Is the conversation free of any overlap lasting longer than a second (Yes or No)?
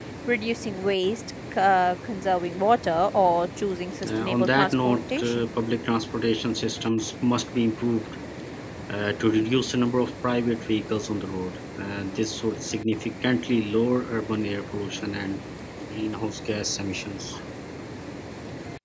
No